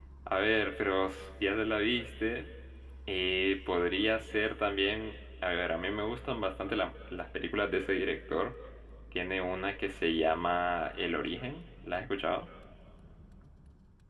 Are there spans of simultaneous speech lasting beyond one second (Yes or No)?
No